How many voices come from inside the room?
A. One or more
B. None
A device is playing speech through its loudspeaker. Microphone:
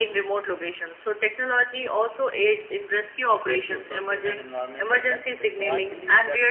A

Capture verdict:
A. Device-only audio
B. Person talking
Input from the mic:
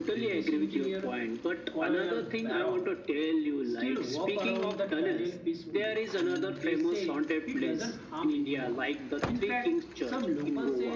B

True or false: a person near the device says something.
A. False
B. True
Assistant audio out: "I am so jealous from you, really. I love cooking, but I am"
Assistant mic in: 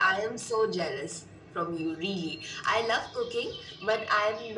A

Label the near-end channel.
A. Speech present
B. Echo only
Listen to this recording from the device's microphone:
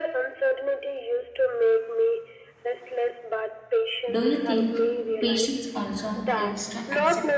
A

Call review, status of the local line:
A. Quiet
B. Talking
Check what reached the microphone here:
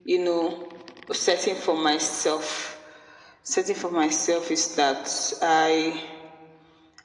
A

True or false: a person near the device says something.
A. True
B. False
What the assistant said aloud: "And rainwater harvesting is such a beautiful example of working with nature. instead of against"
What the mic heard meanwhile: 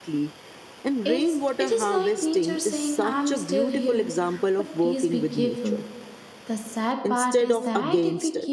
A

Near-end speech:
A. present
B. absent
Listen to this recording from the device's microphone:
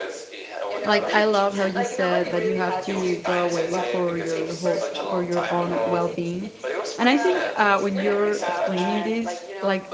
A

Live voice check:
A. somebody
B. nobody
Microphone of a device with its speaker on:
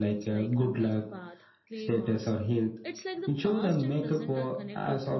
A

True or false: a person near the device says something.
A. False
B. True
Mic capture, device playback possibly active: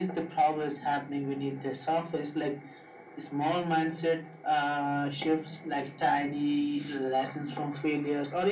A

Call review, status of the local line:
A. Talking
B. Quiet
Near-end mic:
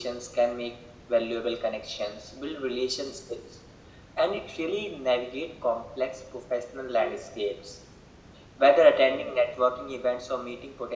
B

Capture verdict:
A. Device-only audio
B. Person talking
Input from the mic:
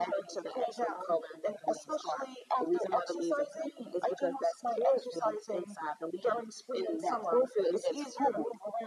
A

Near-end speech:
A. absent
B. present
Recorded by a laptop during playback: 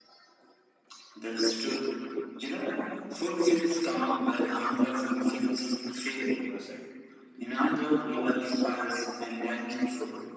B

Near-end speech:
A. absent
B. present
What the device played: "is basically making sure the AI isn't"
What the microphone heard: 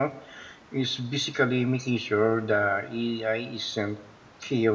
A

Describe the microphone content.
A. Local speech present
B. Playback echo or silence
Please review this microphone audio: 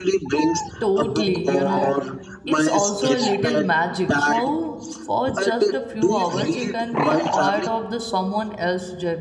A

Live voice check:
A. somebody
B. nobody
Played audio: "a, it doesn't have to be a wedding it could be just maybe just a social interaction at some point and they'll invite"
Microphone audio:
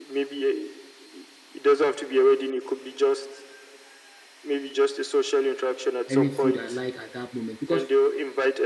A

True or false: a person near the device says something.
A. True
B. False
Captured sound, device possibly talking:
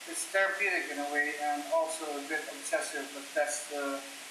B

